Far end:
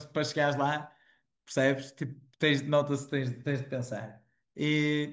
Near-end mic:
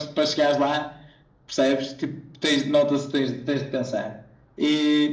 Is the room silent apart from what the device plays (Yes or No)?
Yes